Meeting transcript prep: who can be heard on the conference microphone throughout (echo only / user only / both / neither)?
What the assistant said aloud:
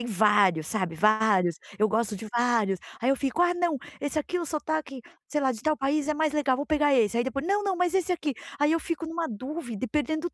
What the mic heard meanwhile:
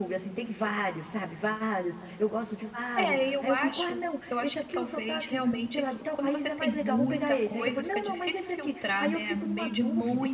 both